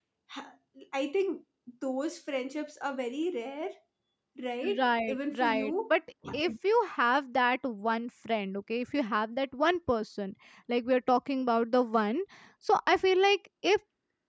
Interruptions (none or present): present